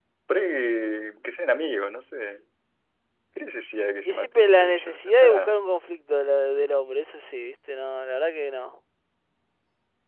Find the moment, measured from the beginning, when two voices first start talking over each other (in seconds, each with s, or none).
4.0 s